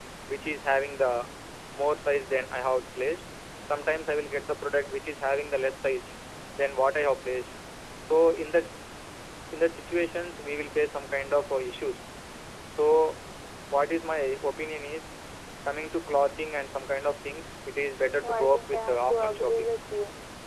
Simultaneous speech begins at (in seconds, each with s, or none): 18.2 s